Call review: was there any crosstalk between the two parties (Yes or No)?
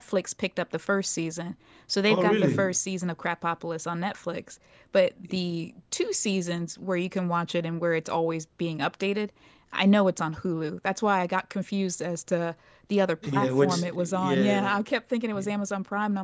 Yes